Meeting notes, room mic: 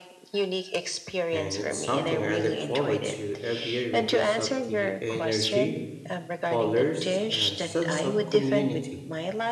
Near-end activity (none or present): present